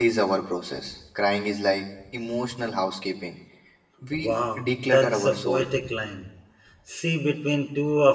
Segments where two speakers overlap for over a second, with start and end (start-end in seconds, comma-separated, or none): 4.2-5.7